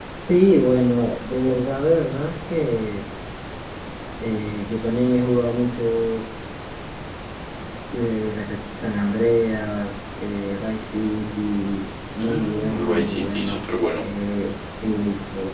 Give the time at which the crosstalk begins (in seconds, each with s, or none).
12.2 s